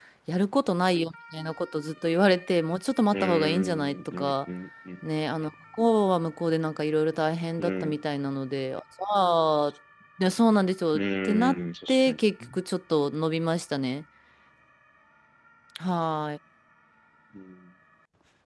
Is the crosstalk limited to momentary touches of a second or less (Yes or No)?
No